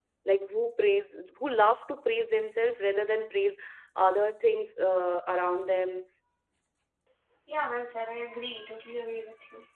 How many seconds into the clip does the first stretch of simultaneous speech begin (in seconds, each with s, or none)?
none